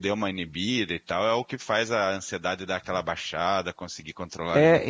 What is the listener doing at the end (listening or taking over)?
taking over